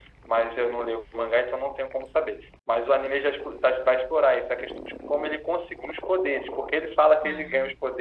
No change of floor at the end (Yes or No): Yes